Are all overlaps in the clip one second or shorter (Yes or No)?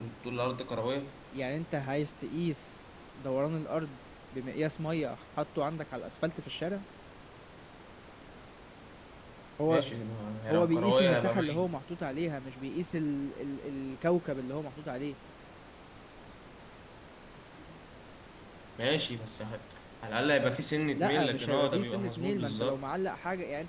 No